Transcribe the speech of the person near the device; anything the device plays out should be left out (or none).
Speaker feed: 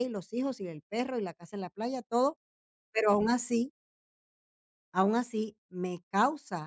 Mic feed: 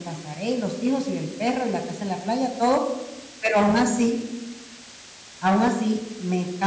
none